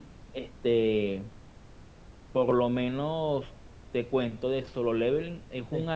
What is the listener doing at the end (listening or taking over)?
listening